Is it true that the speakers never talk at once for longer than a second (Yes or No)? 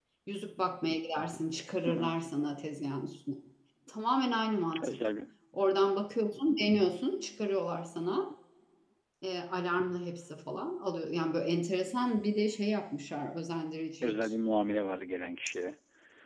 Yes